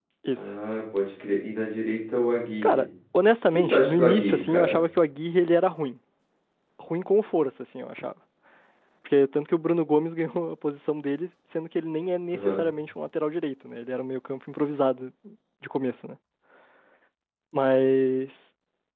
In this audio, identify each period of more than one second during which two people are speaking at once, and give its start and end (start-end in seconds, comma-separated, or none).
3.5-4.8